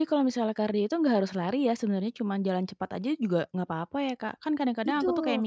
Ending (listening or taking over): listening